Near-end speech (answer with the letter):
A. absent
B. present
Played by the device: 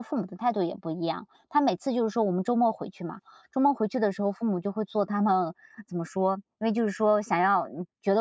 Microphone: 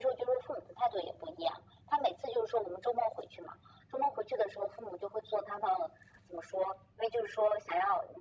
A